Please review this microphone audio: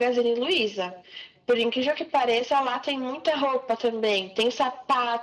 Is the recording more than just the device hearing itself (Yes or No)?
No